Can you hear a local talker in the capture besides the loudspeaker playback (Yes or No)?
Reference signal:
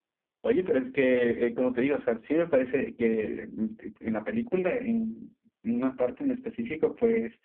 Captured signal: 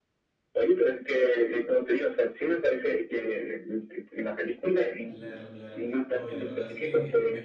Yes